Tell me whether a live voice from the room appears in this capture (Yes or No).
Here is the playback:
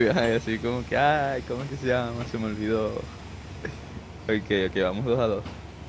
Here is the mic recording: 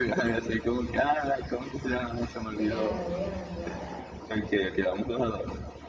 Yes